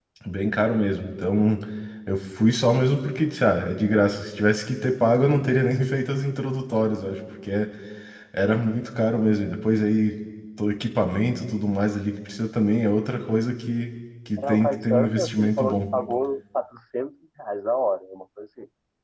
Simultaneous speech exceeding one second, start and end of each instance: 14.5-15.8

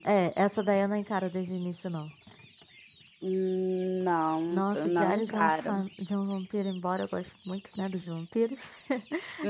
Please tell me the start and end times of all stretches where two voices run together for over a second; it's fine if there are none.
4.5-5.8

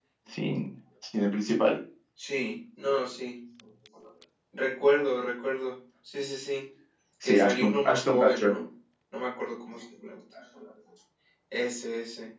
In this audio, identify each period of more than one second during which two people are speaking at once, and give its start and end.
7.2-8.5

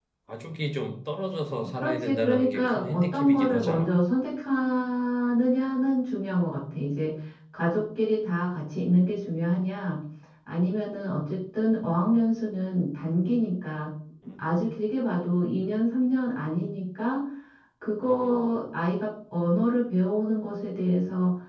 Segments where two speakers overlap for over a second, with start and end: 1.7-3.9

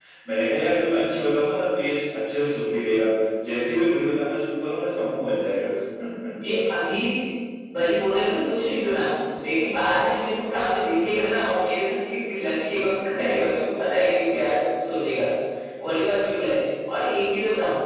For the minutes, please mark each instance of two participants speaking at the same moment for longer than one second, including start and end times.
none

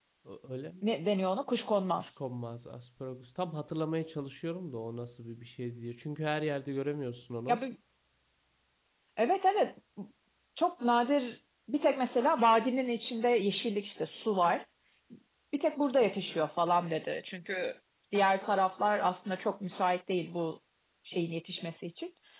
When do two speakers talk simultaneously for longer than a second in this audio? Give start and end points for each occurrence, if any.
none

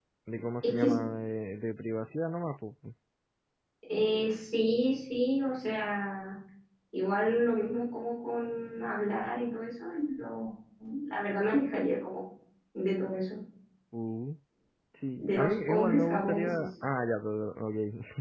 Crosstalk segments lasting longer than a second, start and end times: 15.2-16.6

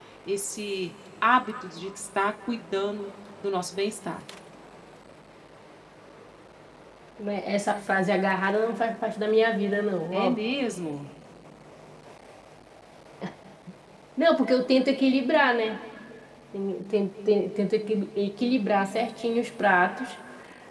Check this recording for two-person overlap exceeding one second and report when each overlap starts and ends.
none

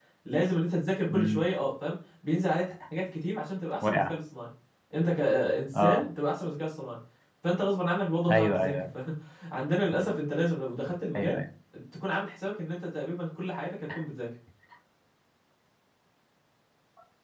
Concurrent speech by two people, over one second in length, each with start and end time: none

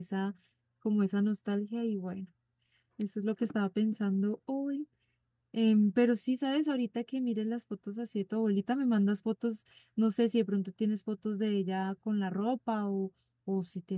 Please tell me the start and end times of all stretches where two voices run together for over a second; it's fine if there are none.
none

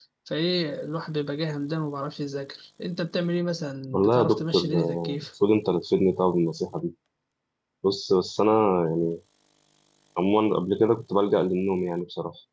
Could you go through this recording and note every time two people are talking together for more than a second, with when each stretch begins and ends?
3.9-5.2

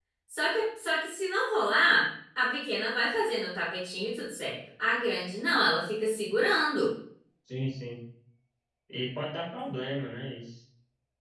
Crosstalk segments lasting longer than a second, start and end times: none

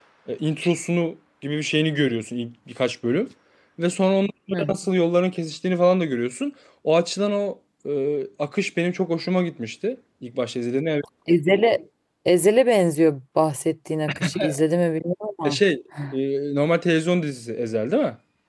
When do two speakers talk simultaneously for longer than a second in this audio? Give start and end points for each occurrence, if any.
none

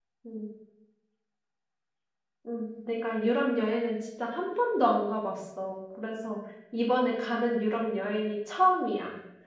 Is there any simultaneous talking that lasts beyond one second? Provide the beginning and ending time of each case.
none

